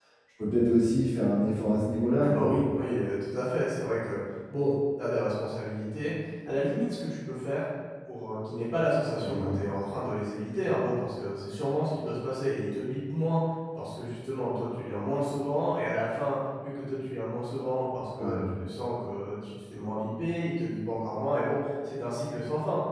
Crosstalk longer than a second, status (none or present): none